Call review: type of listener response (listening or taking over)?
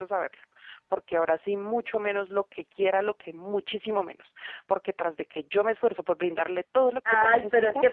taking over